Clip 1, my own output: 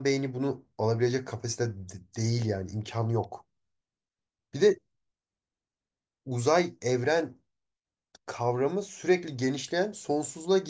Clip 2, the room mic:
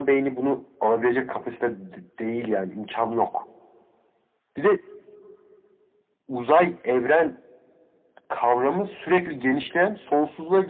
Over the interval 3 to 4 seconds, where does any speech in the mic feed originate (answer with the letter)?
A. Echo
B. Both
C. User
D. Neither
A